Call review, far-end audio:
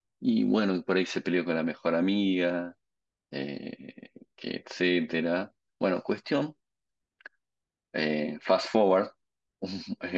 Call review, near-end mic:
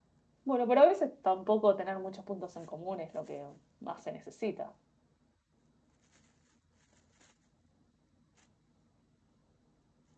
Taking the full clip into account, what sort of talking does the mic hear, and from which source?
user only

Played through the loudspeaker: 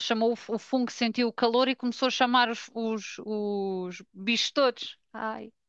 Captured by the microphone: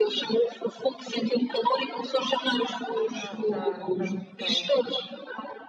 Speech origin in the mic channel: both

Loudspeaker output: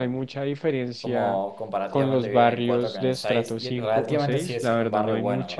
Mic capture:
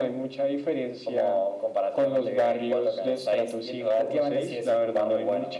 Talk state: echo only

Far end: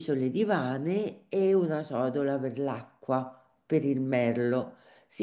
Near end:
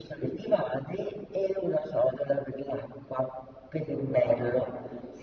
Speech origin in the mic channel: both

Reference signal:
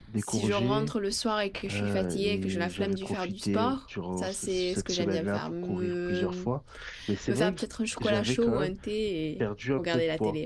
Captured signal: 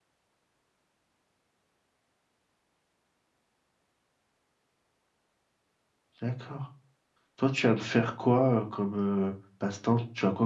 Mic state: user only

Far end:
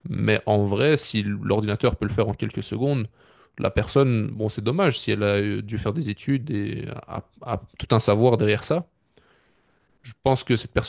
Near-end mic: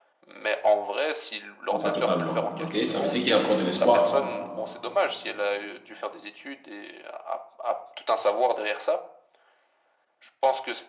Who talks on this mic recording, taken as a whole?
both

